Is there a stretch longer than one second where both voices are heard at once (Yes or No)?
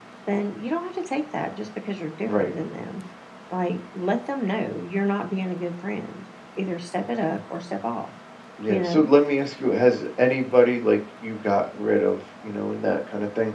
No